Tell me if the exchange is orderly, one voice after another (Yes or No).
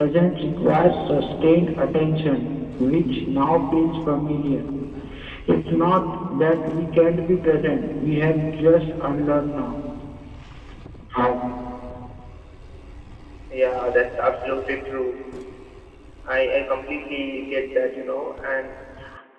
Yes